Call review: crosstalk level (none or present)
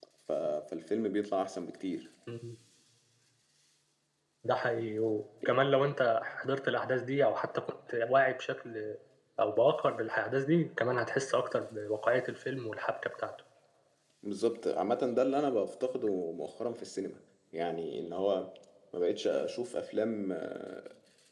none